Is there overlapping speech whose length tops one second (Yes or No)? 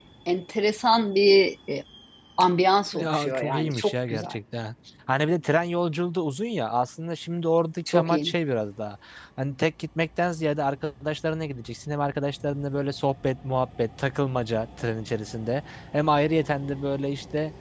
Yes